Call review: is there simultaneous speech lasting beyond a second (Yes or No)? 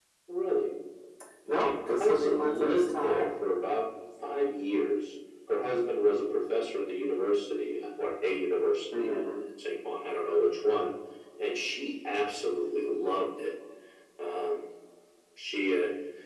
Yes